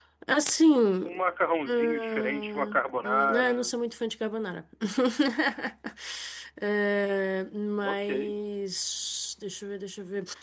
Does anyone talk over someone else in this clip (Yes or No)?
Yes